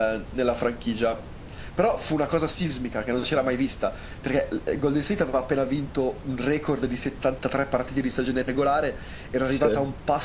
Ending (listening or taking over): listening